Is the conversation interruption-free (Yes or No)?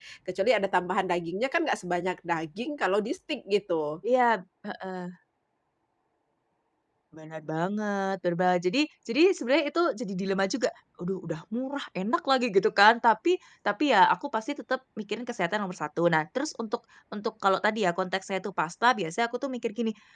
Yes